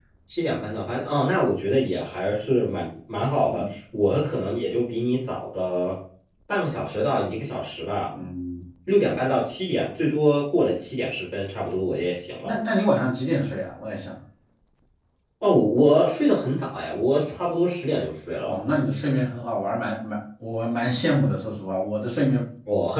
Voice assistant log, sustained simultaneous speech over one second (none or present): none